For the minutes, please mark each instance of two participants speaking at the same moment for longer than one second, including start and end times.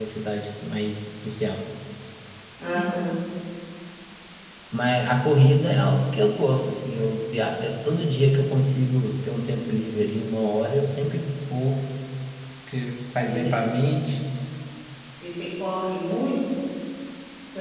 none

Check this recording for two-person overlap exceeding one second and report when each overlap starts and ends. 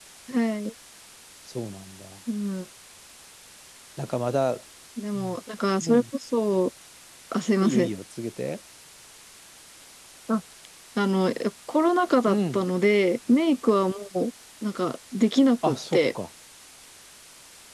none

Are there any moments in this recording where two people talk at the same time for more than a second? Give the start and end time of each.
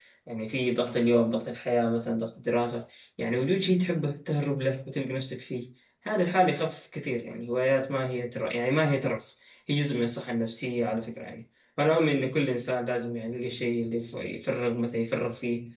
none

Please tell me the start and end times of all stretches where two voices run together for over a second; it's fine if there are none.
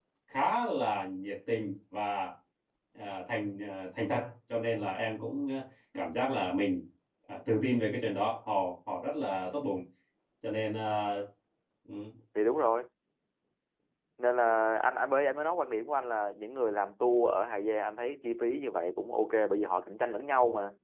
none

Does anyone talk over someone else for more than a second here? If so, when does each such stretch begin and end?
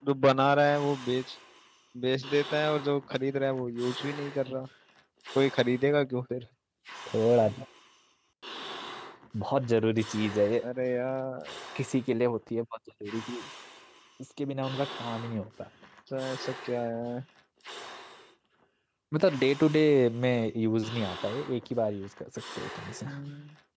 none

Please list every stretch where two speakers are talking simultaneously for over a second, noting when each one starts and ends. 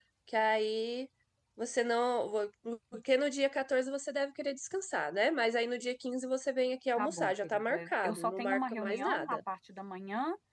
7.0-9.4

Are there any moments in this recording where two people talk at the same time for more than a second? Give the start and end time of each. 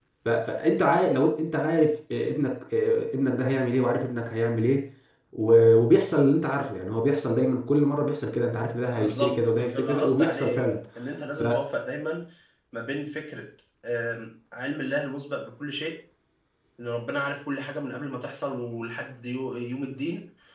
8.9-10.7

